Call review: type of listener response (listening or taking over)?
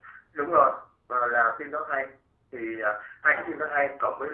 listening